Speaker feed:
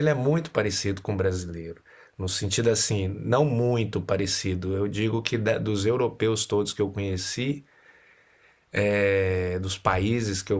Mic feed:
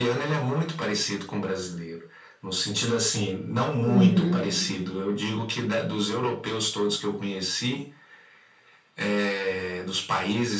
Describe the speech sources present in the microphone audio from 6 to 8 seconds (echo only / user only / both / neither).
echo only